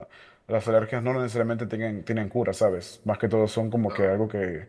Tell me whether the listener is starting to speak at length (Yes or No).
No